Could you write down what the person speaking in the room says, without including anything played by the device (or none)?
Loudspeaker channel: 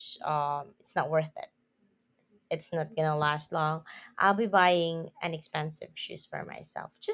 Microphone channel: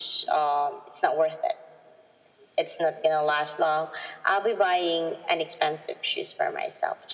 none